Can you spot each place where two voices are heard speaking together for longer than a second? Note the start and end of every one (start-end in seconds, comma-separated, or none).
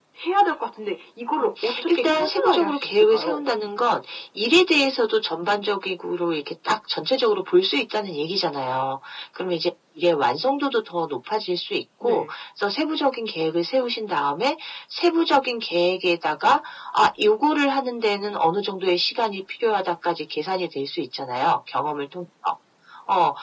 1.4-3.4